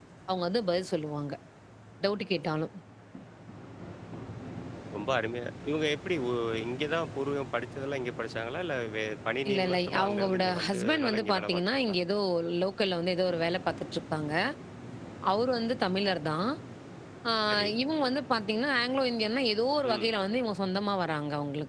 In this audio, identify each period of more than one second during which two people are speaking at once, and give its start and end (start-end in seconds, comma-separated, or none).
9.5-12.0